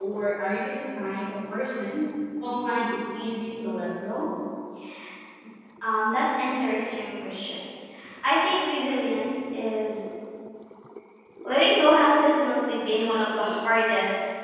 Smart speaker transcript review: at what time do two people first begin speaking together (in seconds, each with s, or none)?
none